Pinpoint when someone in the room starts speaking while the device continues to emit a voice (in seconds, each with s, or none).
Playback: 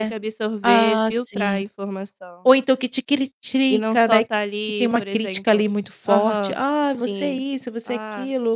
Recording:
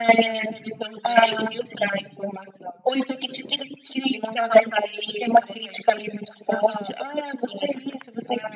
none